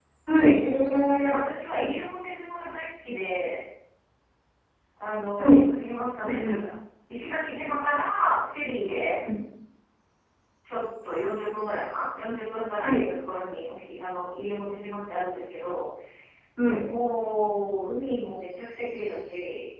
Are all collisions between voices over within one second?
Yes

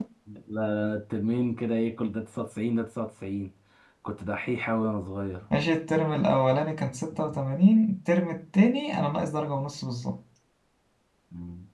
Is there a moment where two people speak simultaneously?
No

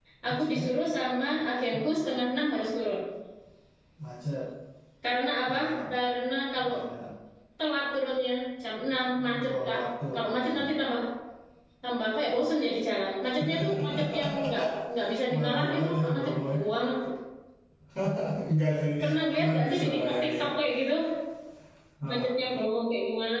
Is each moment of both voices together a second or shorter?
No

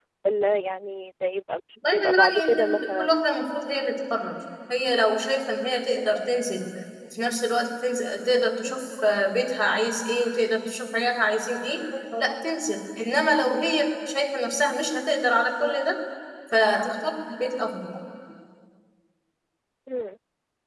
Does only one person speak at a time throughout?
No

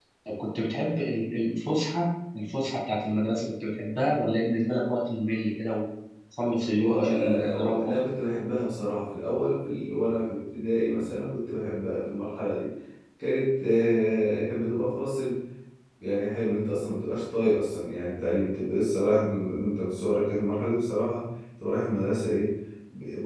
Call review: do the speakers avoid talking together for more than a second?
No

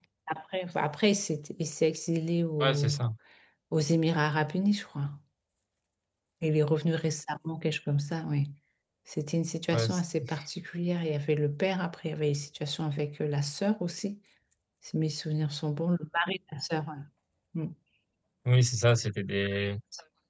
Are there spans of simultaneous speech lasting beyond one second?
No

